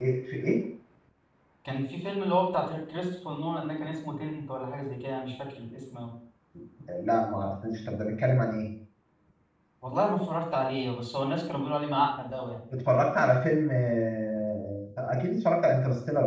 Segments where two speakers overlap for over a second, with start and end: none

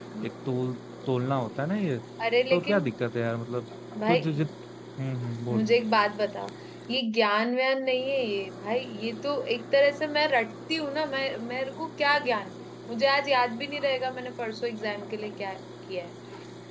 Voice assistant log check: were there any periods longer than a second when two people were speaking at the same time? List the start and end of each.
none

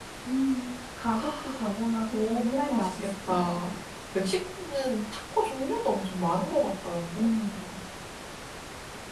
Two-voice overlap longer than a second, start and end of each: 2.1-3.6

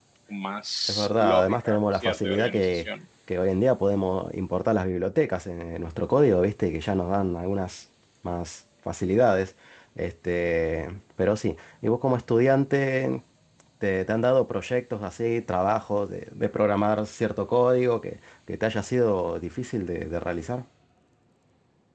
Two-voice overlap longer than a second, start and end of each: 0.9-2.9

